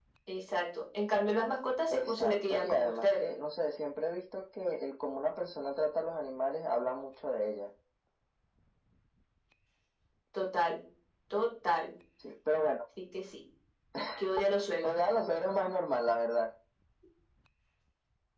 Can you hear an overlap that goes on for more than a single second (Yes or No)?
Yes